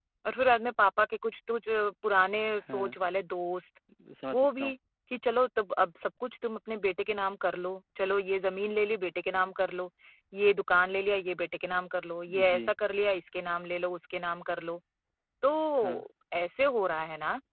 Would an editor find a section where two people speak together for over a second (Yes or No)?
No